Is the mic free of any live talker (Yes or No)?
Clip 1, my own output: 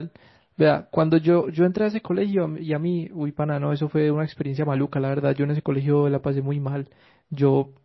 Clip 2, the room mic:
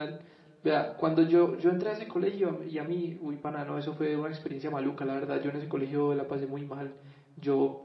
Yes